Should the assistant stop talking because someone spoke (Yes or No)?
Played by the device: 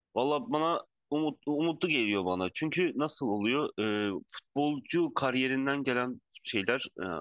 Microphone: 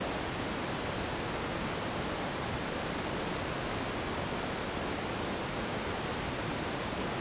No